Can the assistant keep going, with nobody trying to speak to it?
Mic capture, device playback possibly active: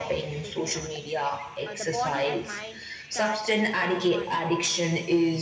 No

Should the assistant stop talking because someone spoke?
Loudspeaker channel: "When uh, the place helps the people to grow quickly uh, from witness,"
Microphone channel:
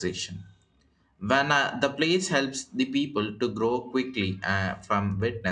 No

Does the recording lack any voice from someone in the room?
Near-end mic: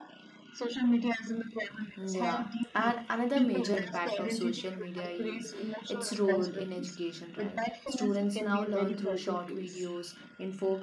No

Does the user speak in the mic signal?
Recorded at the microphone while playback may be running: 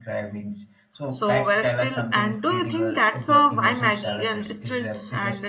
Yes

